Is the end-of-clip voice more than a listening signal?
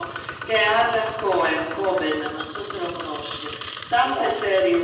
No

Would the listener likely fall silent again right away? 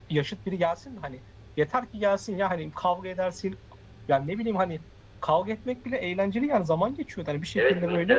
No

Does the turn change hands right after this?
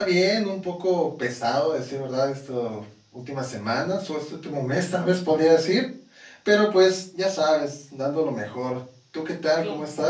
Yes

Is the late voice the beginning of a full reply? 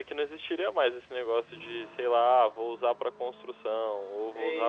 Yes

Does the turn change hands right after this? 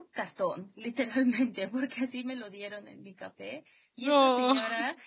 No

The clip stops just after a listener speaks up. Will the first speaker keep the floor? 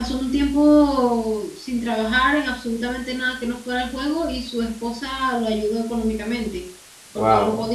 Yes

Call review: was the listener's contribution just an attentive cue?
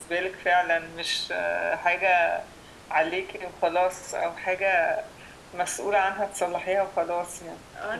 No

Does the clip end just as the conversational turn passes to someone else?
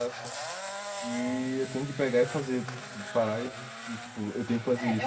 Yes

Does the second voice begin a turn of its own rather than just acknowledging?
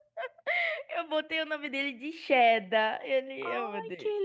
Yes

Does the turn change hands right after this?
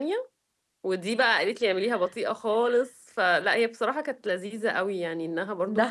No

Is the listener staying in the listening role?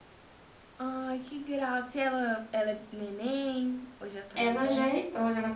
No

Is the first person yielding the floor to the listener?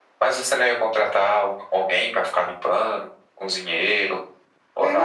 Yes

